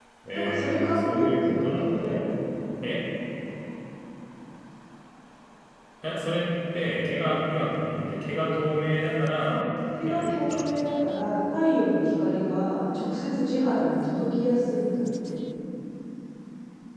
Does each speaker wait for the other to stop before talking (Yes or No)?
No